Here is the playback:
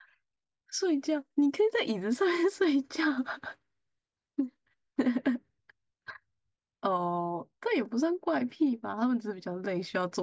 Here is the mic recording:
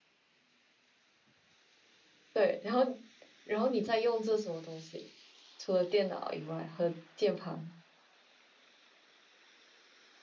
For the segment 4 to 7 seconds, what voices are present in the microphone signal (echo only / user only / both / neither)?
user only